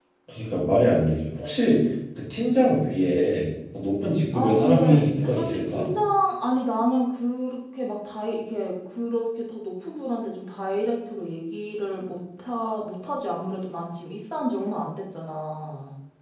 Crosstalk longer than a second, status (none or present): present